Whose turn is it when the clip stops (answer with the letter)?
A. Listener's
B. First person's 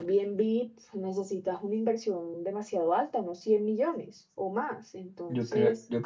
A